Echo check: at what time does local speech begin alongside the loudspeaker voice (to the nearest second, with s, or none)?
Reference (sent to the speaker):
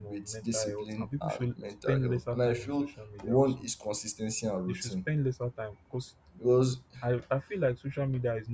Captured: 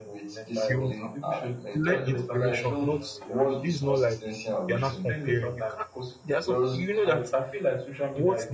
1 s